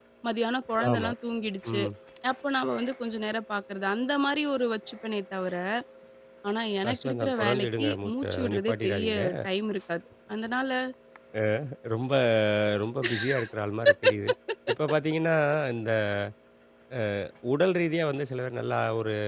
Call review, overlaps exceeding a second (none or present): present